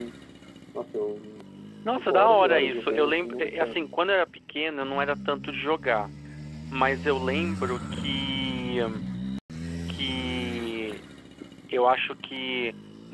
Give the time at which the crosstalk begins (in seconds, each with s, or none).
1.9 s